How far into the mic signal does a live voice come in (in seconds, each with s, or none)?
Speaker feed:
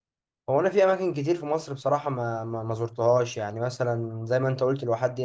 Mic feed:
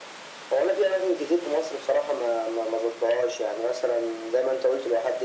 none